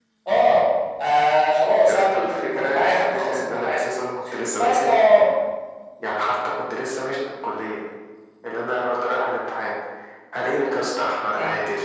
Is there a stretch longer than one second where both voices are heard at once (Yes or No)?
Yes